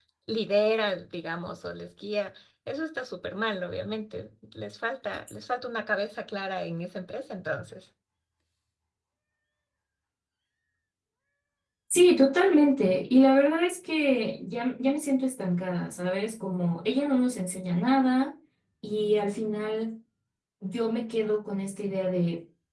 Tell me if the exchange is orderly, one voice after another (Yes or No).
Yes